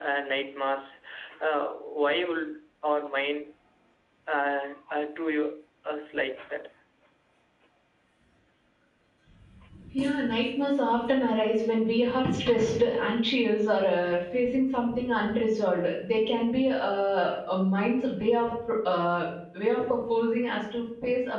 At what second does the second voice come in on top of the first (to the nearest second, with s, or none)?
none